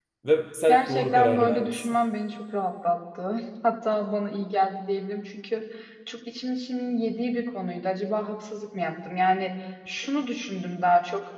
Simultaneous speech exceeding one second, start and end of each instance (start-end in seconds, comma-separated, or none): 0.7-2.0